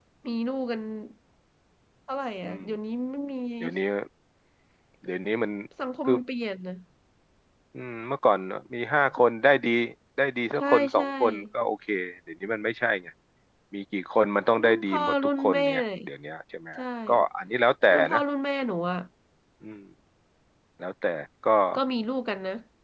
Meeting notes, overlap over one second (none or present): present